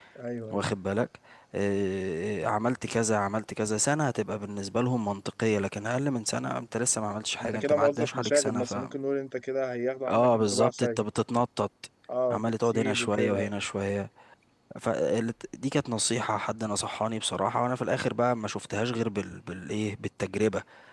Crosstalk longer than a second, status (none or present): present